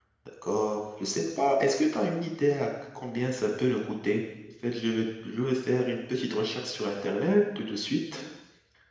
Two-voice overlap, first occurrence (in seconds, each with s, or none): none